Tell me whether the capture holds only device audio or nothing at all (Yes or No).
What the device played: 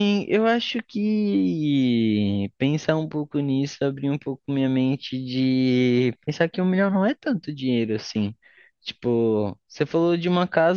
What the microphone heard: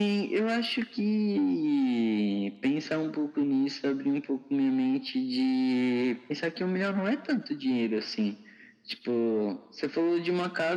Yes